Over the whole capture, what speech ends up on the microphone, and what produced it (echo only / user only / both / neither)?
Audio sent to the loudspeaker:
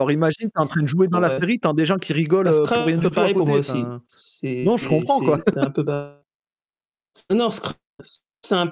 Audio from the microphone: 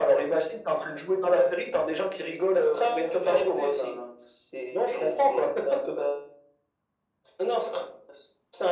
echo only